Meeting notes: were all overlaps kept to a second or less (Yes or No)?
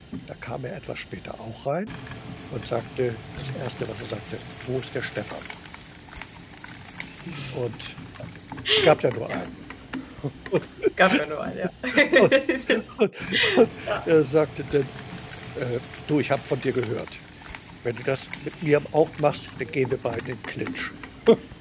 Yes